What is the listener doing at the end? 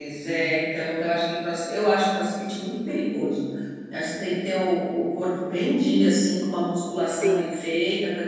listening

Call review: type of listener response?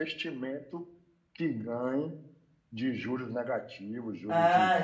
taking over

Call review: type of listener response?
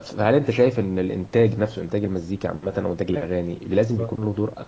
listening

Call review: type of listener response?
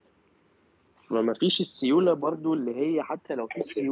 listening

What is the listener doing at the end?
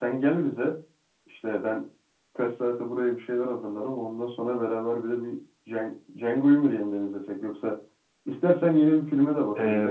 taking over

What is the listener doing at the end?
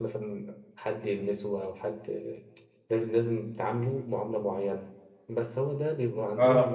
listening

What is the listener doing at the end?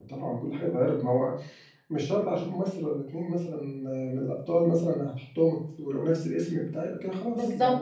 taking over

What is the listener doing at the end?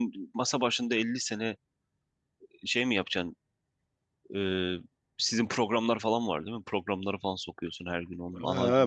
taking over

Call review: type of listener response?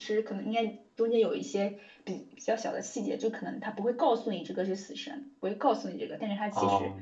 taking over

